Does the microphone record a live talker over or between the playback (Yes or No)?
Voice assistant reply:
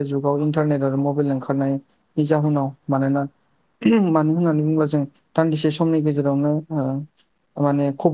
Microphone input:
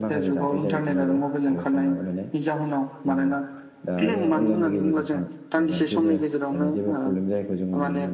Yes